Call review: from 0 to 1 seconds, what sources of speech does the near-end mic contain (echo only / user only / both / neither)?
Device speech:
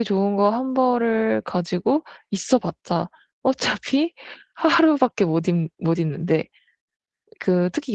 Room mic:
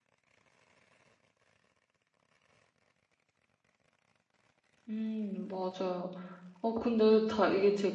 neither